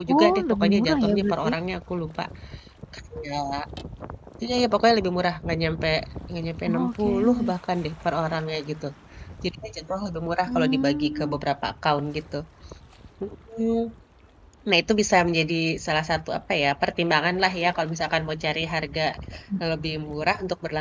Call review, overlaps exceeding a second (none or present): present